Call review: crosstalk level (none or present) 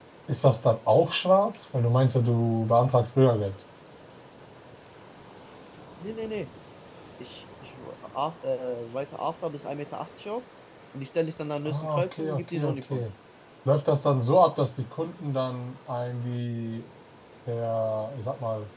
present